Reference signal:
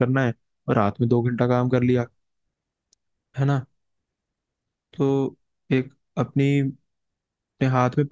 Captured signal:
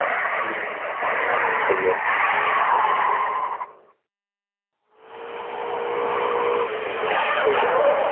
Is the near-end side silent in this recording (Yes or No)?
No